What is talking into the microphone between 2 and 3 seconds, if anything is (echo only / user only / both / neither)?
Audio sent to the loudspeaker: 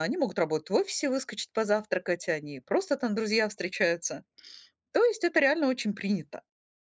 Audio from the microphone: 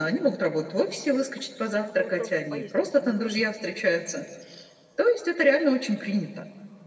both